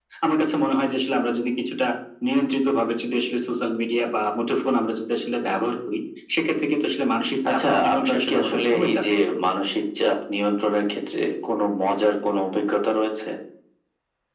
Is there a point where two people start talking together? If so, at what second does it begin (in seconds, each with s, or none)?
7.5 s